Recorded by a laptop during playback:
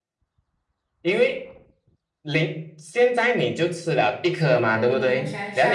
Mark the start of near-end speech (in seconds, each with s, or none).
4.7 s